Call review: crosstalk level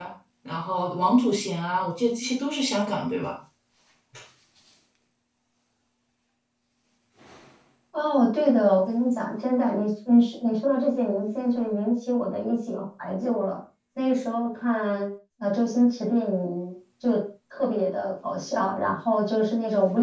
none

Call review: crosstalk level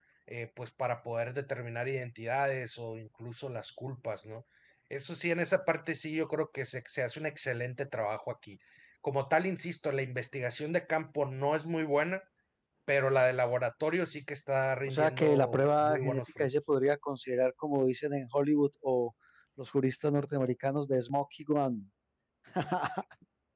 present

